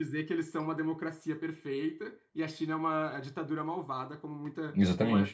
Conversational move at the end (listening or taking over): listening